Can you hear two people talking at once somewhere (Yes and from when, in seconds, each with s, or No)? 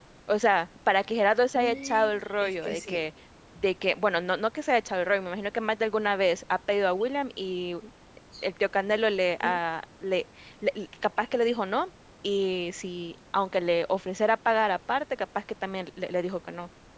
Yes, from 1.5 s